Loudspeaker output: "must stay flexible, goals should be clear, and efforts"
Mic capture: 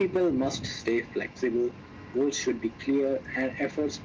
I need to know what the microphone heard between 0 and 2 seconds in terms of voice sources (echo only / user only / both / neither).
echo only